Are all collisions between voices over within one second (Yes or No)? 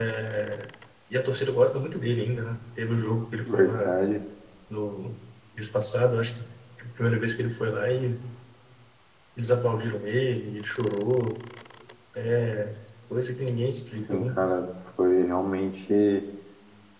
Yes